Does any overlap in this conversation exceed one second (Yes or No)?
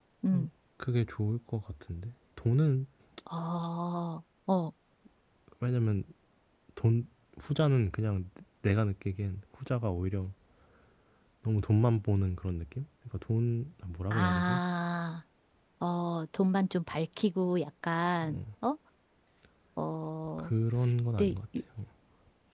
No